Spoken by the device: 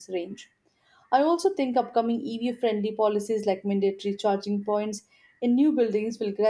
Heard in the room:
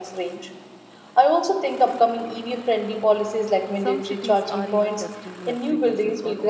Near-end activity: present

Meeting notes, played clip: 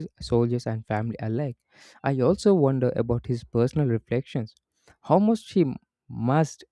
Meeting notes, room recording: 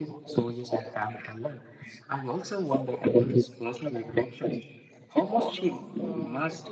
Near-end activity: present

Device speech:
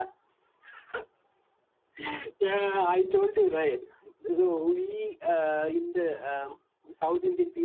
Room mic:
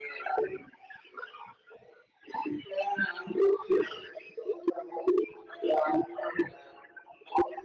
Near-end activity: none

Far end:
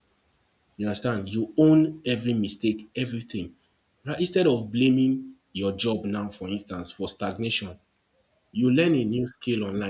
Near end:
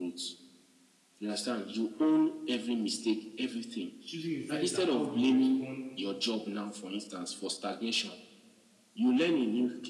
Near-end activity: present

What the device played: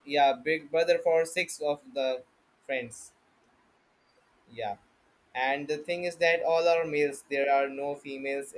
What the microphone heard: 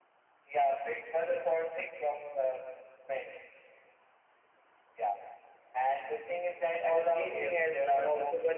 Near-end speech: present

